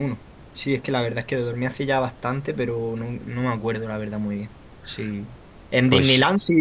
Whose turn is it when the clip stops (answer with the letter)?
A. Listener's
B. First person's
B